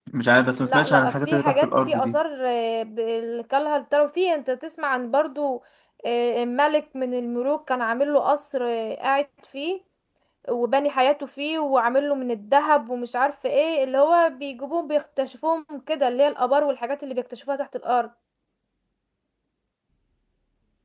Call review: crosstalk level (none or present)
present